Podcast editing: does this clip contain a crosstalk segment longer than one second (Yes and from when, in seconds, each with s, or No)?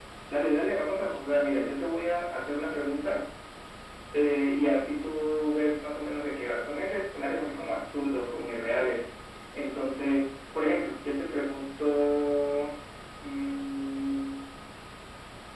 No